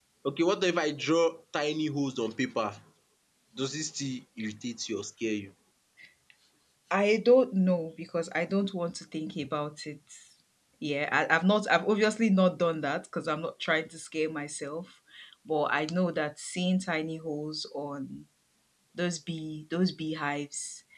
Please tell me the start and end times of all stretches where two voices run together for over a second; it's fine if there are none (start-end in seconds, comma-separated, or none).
none